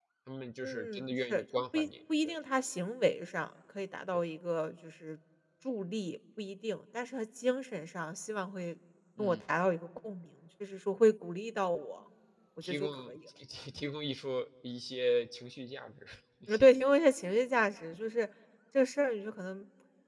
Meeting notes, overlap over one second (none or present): present